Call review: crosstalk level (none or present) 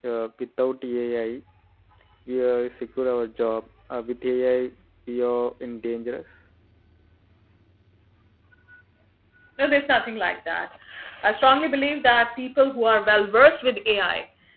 none